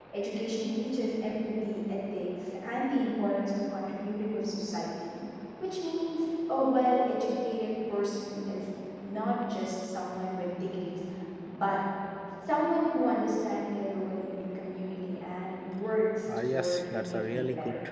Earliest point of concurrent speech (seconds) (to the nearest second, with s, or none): 16 s